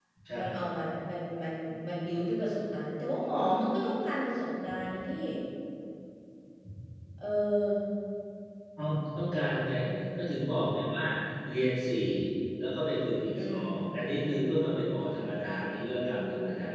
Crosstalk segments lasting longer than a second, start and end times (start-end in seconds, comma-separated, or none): none